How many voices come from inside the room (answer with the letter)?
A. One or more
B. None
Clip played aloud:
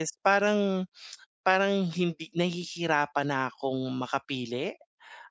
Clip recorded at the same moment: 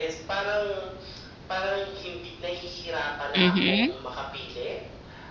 A